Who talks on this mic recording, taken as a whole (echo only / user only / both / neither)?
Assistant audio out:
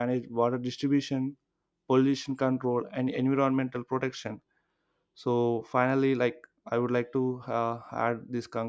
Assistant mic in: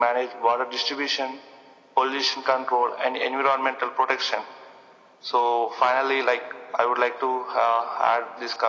echo only